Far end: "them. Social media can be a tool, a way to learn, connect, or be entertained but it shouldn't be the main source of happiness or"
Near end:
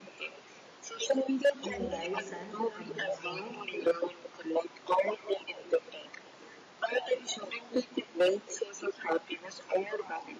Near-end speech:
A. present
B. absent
A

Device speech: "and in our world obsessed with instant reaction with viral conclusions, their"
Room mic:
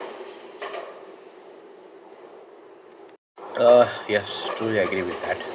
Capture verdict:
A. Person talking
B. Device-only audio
A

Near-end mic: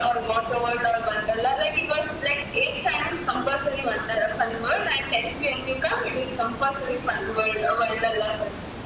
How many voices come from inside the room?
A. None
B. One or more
A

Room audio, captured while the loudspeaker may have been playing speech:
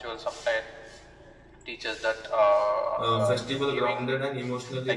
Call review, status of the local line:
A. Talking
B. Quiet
A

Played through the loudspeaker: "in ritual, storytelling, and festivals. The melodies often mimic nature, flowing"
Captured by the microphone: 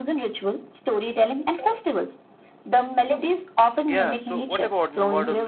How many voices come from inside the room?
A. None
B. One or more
B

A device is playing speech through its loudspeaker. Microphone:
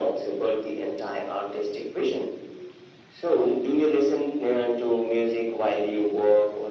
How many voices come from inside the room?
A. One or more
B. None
B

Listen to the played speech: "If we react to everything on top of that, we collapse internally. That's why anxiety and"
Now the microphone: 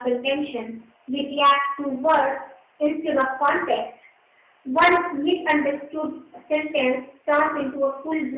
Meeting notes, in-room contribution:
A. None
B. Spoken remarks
B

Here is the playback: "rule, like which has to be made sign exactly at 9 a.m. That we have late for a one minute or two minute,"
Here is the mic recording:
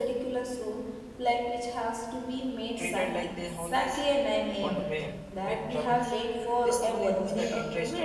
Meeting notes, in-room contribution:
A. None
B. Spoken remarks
B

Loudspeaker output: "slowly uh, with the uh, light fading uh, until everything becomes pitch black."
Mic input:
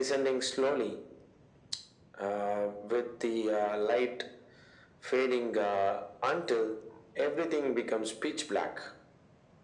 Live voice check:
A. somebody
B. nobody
B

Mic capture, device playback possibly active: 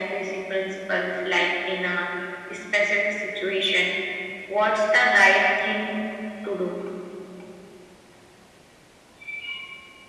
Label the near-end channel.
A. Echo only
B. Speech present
A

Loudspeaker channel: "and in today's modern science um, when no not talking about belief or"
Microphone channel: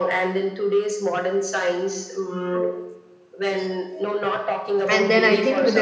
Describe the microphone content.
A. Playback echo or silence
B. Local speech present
B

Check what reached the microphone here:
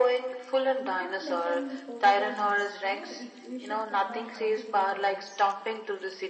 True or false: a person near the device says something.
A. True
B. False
A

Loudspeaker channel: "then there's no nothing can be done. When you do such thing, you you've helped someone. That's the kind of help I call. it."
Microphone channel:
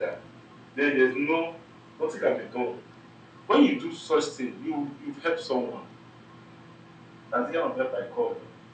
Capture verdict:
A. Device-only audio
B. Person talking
A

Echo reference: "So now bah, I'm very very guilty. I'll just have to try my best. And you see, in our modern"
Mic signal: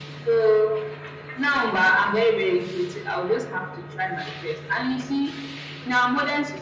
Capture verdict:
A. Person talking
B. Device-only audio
B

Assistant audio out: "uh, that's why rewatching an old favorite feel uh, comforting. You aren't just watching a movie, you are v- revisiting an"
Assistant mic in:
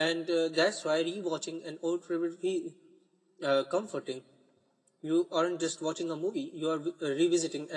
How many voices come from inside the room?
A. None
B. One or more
A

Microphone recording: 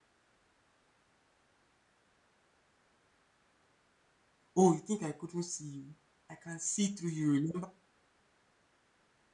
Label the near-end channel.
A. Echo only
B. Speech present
B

